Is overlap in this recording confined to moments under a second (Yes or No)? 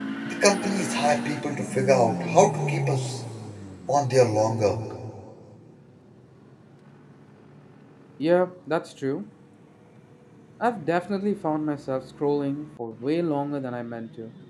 Yes